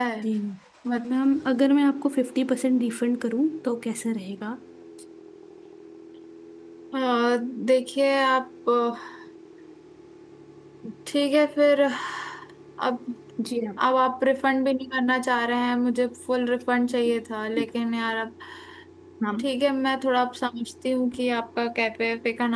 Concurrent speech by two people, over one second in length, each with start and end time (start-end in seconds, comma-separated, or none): none